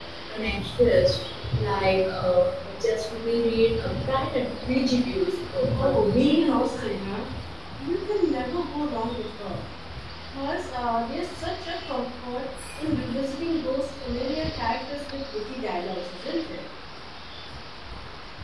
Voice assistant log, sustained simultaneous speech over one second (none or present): present